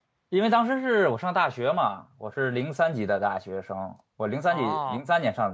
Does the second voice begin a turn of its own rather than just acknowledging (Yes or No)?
No